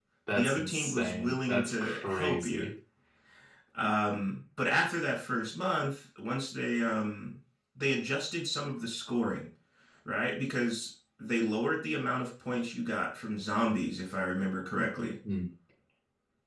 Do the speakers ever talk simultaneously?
Yes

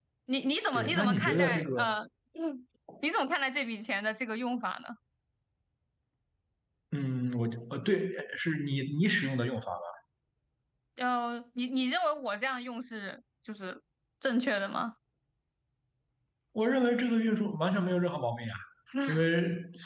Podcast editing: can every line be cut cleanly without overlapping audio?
No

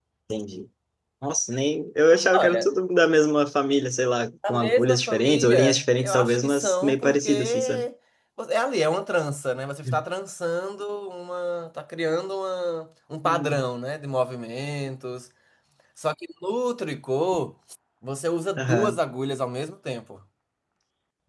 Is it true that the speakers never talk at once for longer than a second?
No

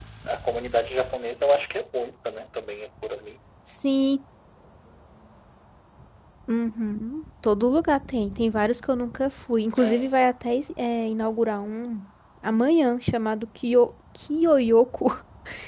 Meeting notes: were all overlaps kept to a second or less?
Yes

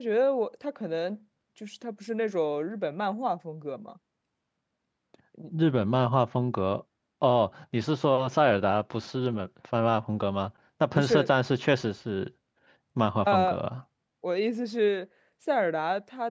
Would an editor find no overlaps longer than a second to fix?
Yes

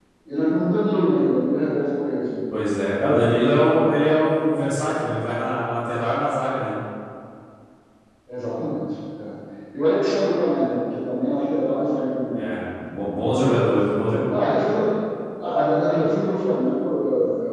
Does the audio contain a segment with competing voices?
No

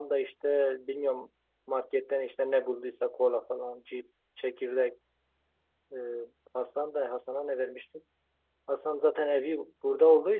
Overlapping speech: No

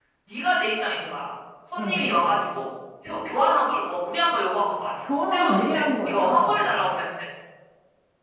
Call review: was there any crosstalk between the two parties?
Yes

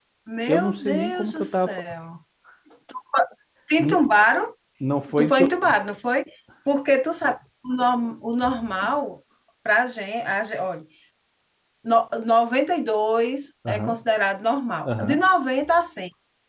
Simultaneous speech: Yes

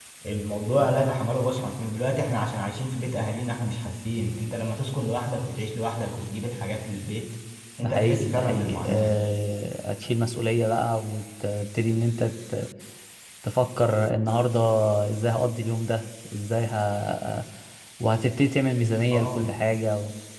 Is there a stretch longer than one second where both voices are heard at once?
Yes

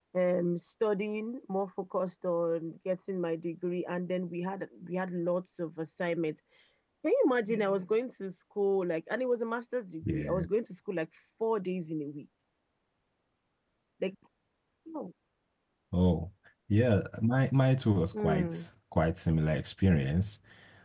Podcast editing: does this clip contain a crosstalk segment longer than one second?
No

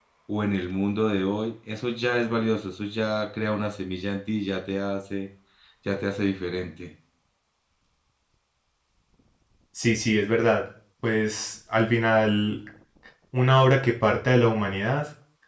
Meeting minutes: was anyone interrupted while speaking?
No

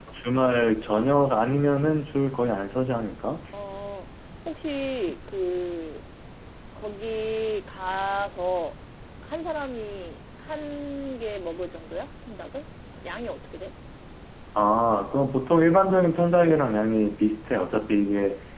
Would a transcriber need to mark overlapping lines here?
No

